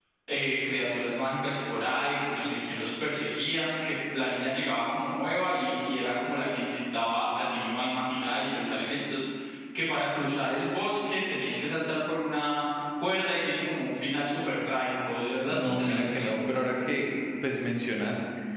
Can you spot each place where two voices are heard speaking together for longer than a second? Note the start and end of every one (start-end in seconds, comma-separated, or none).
15.5-16.7